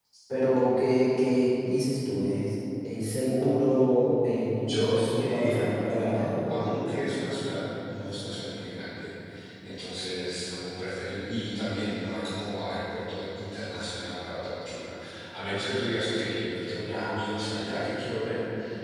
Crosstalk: present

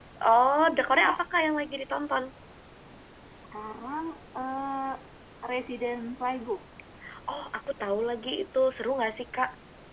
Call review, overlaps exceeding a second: none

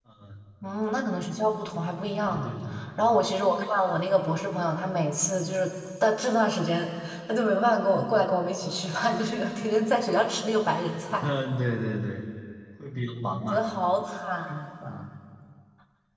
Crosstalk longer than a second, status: none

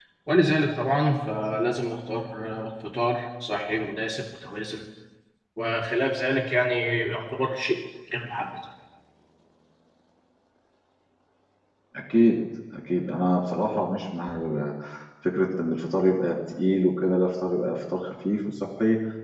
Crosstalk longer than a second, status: none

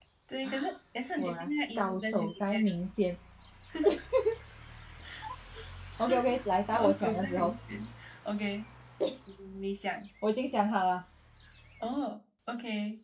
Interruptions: present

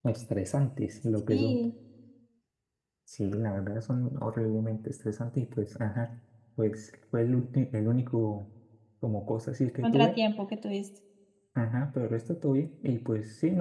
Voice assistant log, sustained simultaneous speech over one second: none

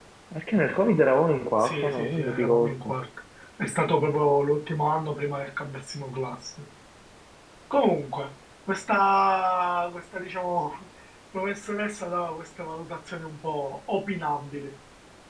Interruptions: present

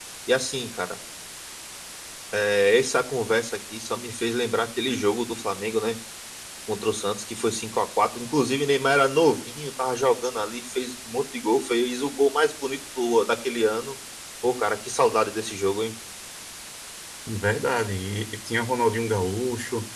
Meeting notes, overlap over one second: none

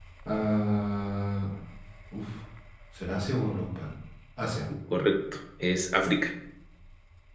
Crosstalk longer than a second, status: none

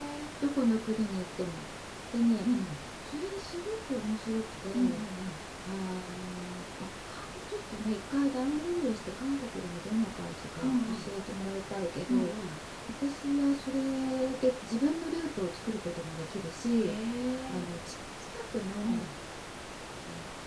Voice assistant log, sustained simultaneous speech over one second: none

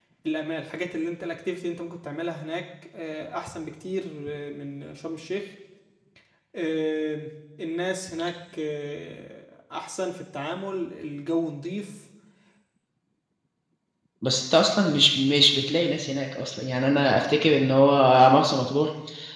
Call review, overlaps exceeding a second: none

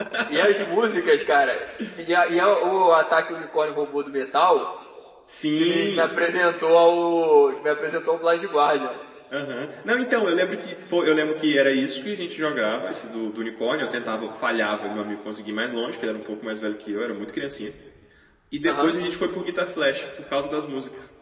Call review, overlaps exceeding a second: none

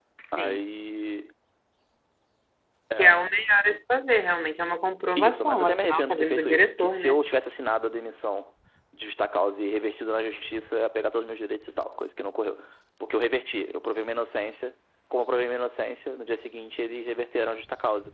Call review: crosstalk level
present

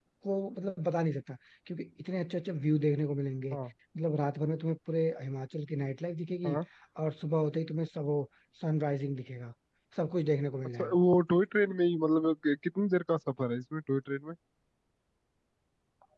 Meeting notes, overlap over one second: none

